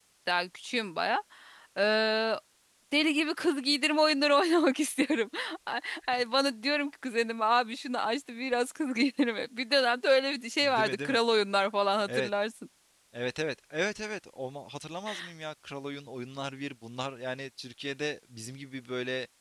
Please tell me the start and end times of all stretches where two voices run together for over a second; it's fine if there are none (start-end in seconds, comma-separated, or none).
none